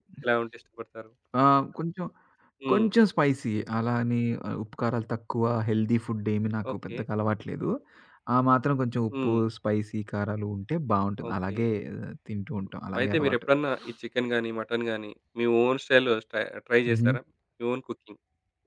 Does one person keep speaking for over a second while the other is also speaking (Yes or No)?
No